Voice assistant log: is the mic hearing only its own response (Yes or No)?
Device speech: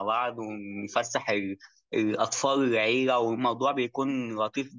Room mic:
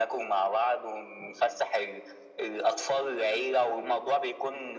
Yes